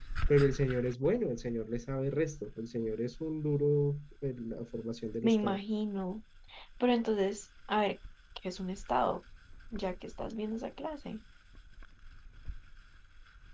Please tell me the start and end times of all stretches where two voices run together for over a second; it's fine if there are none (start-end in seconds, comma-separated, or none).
none